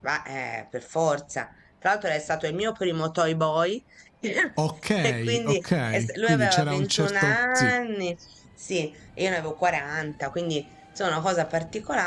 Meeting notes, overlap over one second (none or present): present